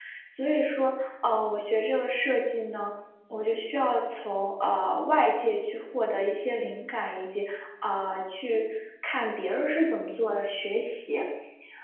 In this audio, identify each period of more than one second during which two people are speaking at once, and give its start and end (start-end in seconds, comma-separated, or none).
none